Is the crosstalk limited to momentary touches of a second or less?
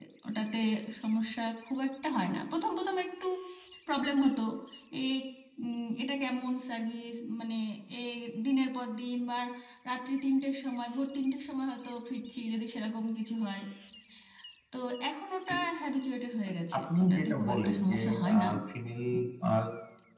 No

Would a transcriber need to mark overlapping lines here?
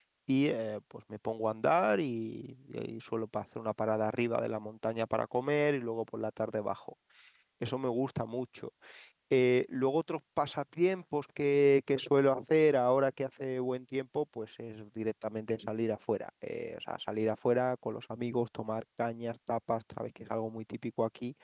No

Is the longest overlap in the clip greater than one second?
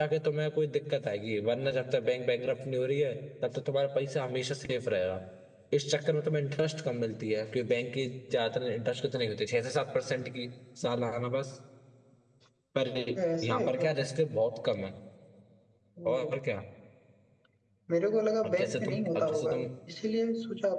Yes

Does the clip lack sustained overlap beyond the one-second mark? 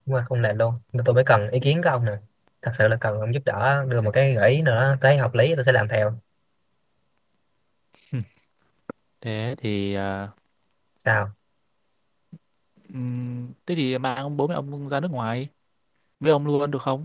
Yes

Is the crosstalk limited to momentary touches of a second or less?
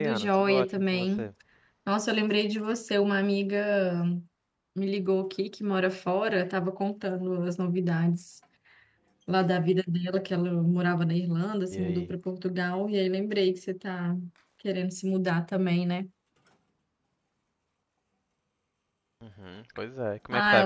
No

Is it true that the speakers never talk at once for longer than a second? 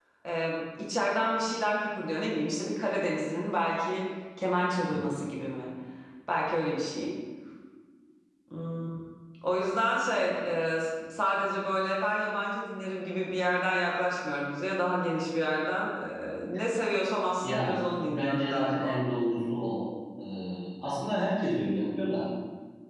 No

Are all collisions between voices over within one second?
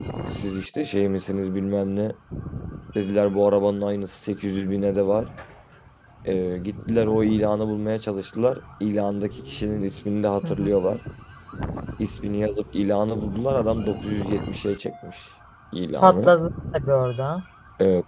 Yes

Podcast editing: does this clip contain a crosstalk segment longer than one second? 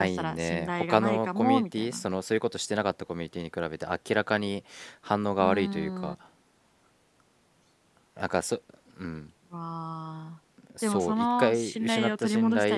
Yes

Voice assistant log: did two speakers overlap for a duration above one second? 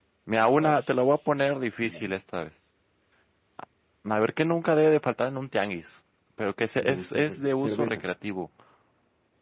Yes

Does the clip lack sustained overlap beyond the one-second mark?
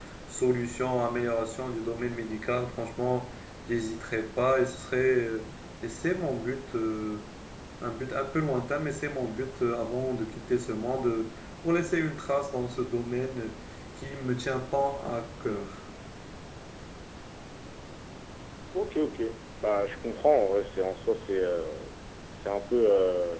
Yes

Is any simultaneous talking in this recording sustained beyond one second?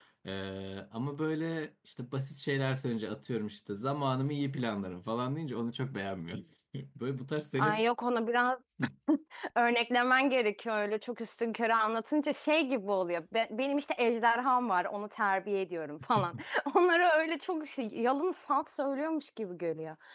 No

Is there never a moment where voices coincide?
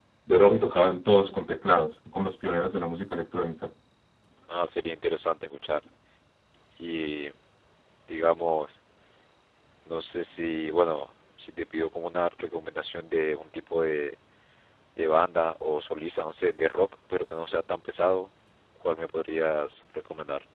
Yes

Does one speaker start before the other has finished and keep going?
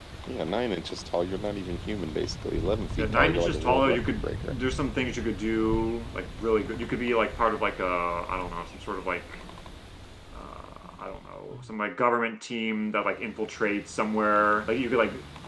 Yes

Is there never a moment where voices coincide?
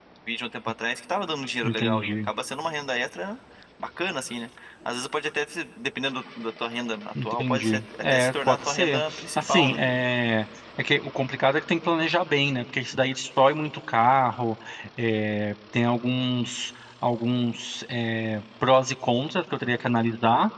No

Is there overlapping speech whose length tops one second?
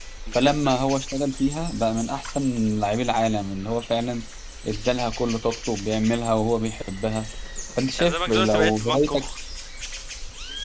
Yes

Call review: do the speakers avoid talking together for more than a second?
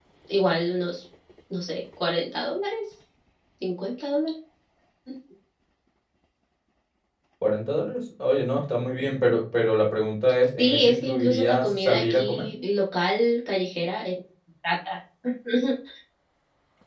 No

